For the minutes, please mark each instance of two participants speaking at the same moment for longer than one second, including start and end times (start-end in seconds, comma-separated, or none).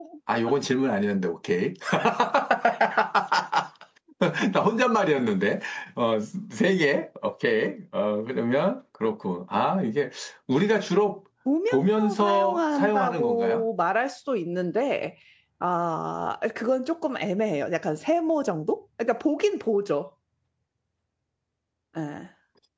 11.7-13.6